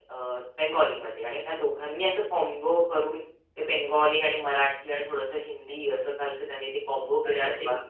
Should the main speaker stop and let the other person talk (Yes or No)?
Yes